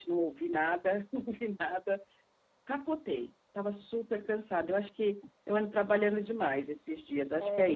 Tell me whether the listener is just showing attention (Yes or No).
No